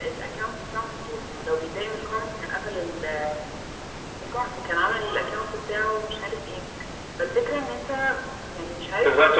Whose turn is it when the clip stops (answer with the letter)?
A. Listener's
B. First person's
A